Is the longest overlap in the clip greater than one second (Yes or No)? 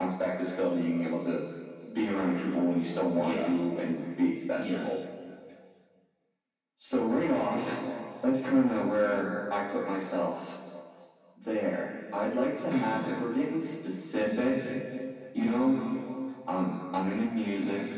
No